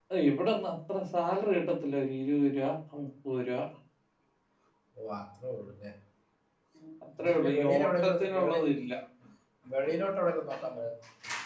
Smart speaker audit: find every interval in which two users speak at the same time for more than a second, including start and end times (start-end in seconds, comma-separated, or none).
7.2-8.6